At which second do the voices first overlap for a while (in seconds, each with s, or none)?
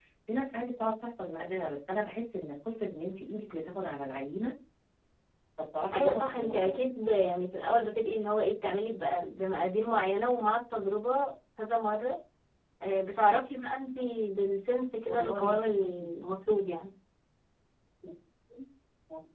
5.9 s